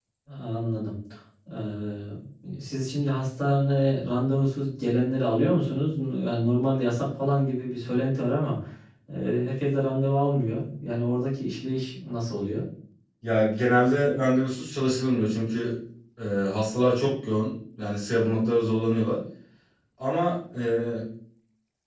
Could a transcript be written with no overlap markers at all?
Yes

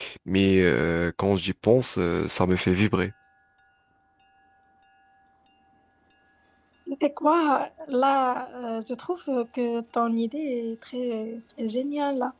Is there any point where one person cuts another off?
No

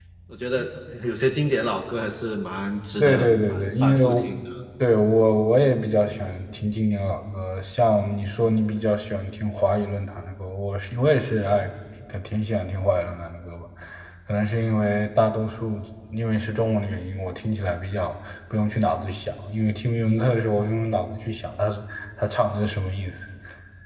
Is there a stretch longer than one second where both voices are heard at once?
Yes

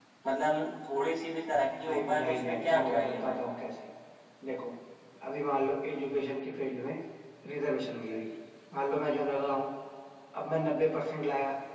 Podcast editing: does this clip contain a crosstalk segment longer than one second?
Yes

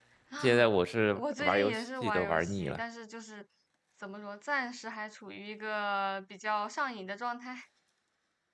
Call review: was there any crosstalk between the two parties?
Yes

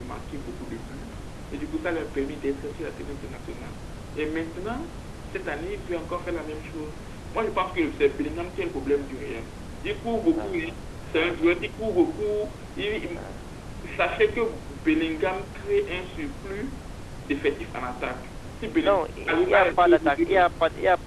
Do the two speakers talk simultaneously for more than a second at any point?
Yes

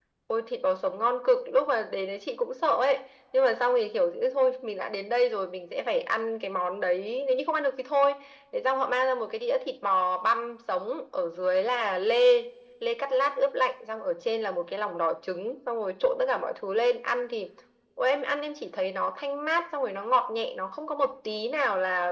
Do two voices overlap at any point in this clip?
No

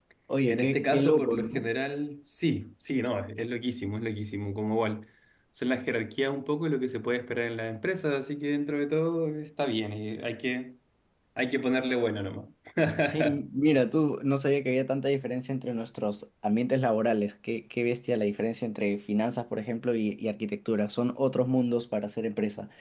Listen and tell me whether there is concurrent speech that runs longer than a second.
Yes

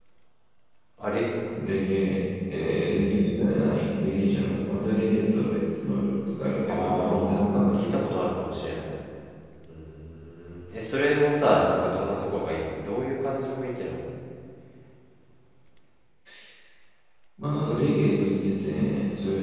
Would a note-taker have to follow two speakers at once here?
Yes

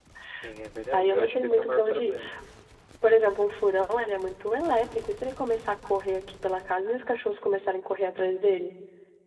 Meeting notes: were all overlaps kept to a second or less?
No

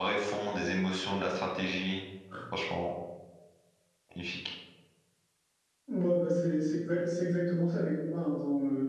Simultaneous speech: No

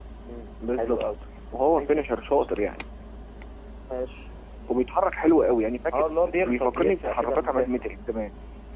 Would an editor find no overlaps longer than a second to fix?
No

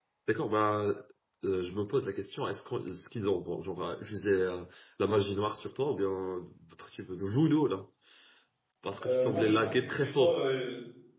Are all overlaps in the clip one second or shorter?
No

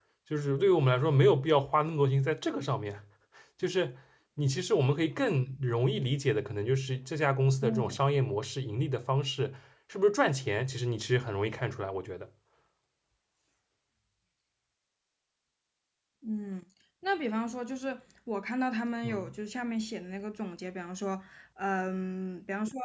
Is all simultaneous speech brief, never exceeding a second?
Yes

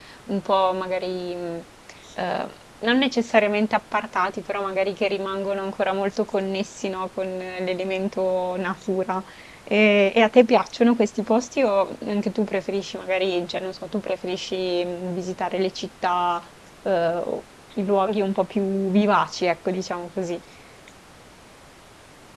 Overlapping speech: No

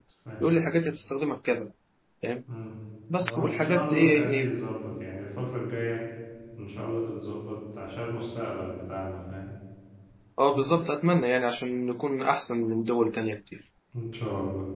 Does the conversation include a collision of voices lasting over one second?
Yes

